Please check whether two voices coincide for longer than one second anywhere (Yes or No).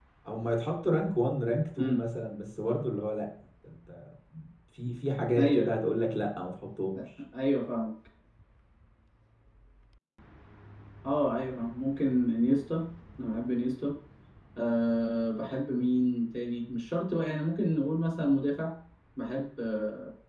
No